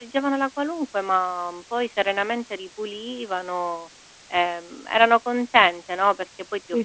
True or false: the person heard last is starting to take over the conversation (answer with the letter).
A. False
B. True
B